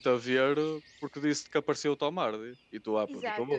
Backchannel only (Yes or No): No